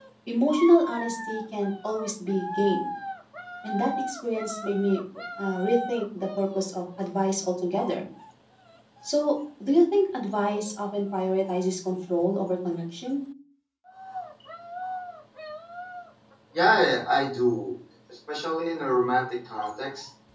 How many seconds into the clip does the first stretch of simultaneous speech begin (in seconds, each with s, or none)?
none